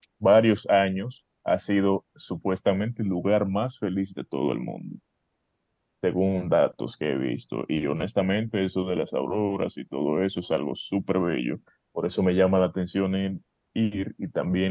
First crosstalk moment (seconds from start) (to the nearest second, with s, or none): none